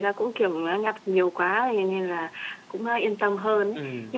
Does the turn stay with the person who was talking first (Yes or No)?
Yes